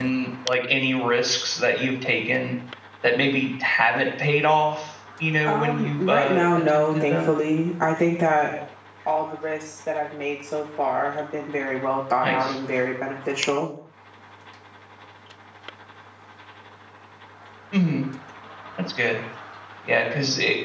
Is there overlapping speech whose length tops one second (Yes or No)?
Yes